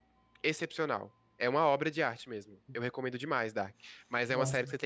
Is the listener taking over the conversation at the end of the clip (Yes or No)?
No